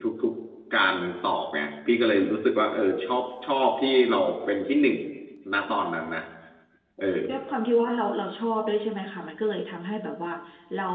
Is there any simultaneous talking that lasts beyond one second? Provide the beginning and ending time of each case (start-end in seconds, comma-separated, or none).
none